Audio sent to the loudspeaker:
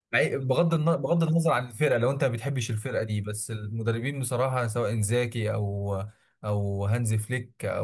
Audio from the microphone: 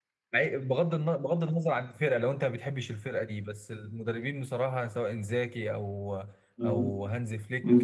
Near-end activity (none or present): present